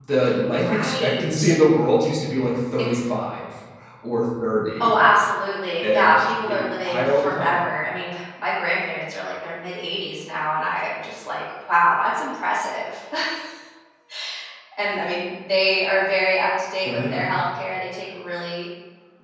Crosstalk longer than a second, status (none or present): present